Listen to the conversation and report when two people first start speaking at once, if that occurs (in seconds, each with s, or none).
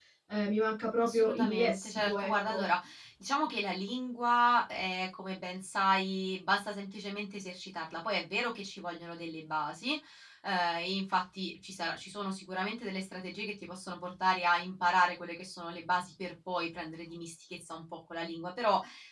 1.0 s